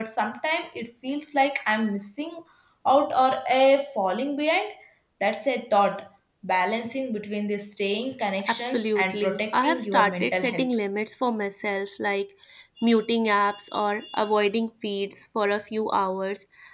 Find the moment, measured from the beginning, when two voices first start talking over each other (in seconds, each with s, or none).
8.5 s